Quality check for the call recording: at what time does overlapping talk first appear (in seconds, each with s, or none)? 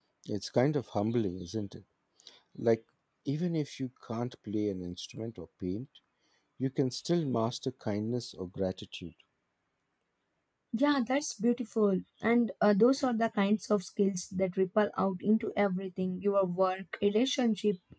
none